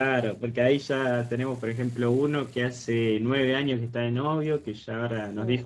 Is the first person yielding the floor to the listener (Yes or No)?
No